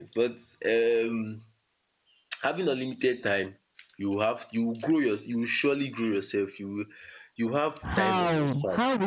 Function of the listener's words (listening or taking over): taking over